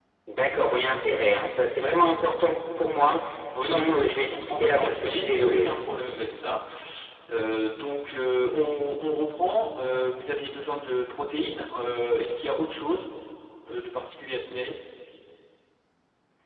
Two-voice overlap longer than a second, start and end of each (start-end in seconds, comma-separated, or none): 3.5-5.8